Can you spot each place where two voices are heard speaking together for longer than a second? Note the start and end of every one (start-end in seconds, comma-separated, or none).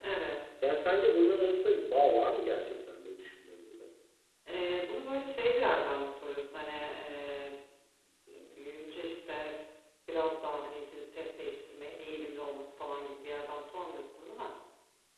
none